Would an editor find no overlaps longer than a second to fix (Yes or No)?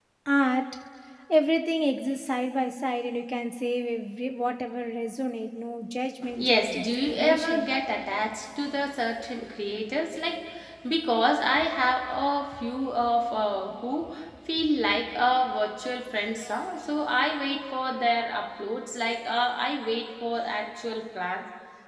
No